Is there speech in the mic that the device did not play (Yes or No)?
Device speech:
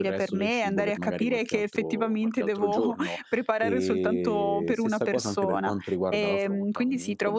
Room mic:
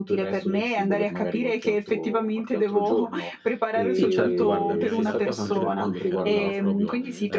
Yes